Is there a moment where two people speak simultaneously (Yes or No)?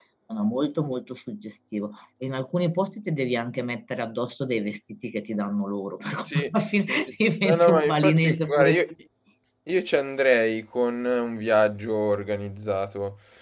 Yes